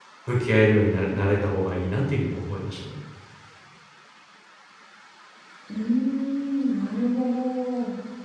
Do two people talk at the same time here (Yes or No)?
No